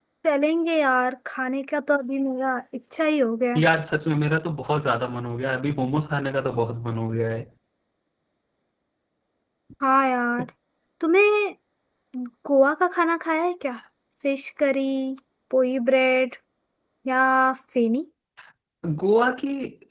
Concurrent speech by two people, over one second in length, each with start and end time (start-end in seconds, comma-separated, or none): none